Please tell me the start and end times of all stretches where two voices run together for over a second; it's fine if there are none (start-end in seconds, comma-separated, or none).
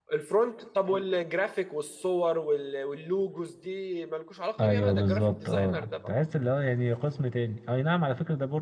4.6-6.1